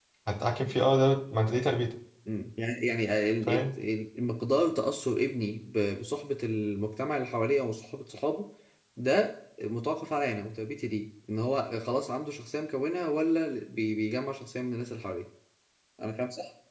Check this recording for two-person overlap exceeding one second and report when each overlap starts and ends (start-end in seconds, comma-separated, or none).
none